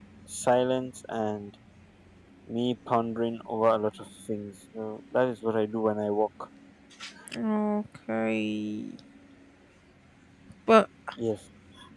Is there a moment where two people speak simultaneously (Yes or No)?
No